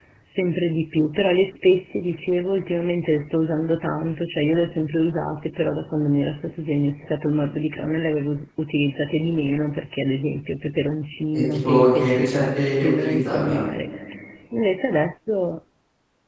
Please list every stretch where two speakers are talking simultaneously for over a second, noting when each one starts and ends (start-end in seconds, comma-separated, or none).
11.3-13.6